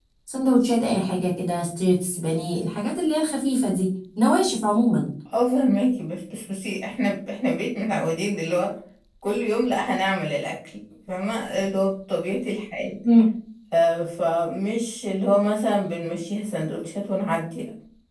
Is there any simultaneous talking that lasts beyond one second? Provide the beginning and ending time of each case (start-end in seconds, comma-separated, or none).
none